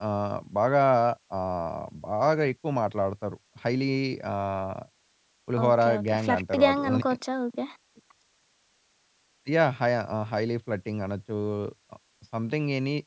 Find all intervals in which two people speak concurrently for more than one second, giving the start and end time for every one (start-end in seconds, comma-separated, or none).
5.6-7.1